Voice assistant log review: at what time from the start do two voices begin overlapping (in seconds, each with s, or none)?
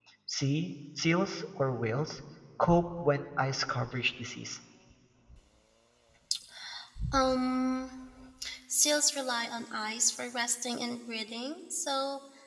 none